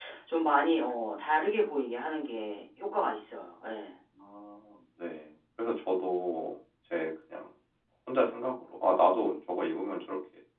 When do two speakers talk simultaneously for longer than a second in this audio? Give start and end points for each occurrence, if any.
none

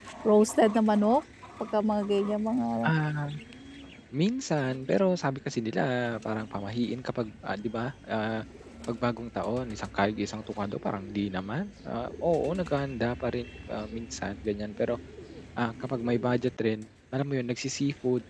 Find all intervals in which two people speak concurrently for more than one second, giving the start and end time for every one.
none

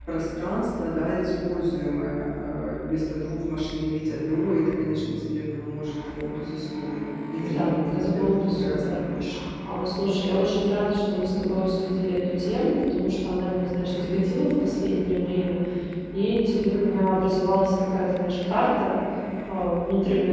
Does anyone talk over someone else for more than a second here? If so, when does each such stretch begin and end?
7.4-9.0

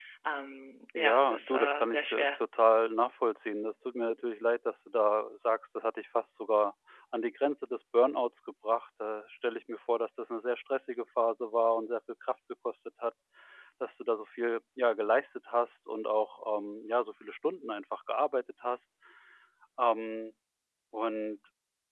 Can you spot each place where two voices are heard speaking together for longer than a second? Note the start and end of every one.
1.0-2.2

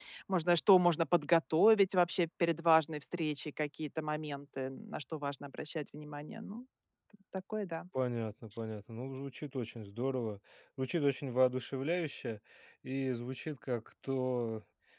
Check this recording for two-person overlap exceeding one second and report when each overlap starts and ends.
none

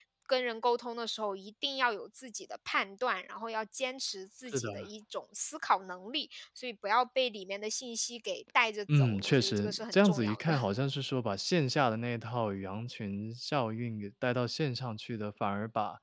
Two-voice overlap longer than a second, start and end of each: 8.9-10.5

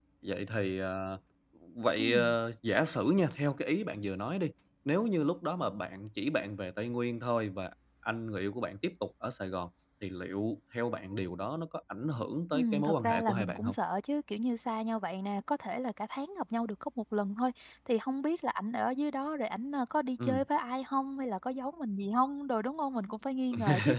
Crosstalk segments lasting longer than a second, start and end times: 12.5-13.8

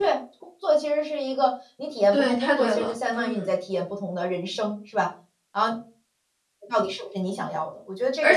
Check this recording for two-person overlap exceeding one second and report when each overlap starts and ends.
2.1-3.5

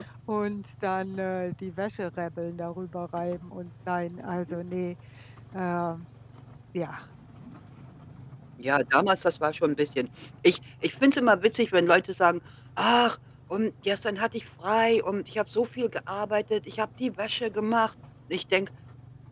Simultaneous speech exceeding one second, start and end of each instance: none

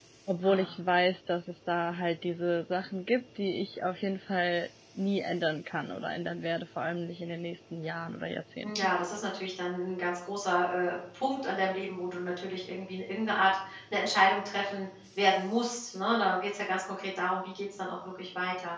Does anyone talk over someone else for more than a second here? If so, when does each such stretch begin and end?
none

